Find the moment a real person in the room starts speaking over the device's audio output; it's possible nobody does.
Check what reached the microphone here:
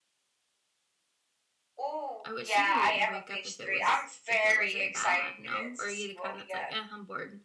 2.2 s

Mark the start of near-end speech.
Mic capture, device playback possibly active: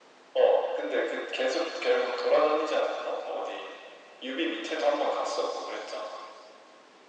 none

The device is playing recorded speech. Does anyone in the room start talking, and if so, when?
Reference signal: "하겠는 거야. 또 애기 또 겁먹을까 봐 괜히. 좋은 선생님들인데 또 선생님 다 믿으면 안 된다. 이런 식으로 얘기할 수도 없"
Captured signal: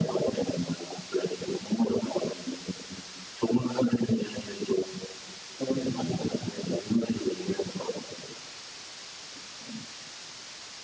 5.7 s

